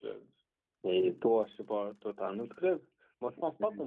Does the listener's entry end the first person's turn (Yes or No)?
No